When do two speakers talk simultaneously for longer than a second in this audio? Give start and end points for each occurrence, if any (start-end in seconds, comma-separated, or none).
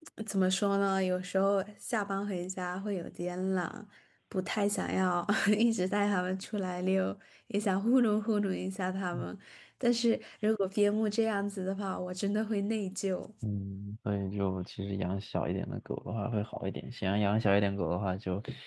none